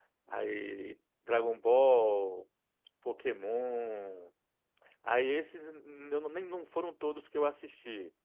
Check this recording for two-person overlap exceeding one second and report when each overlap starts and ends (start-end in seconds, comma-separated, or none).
none